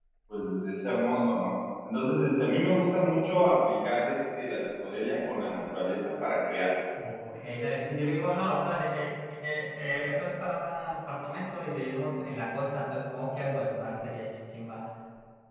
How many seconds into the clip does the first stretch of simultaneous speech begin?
none

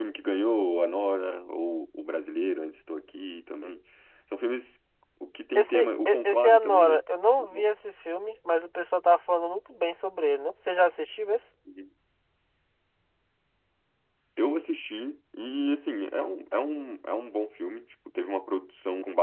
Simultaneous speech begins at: 5.5 s

